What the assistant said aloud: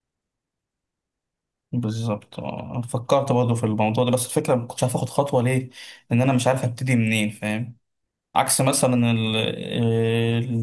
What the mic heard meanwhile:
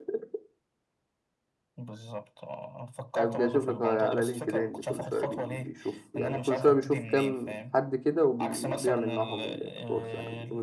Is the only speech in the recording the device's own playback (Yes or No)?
No